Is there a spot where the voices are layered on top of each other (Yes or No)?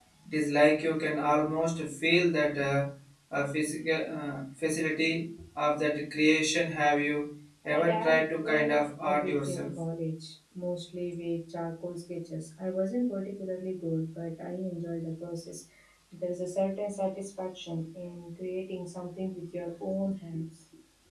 Yes